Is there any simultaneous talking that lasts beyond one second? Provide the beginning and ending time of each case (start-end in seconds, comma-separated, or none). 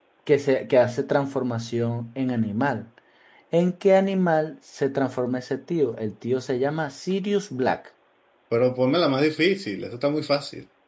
none